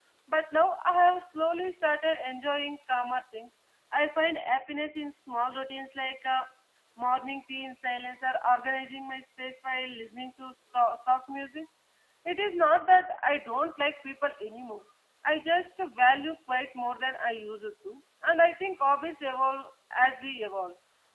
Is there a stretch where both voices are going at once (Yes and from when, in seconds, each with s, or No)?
No